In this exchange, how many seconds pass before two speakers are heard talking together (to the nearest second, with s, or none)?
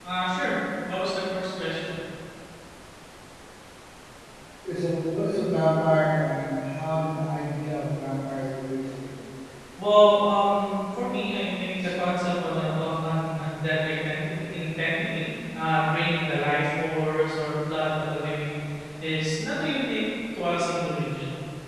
none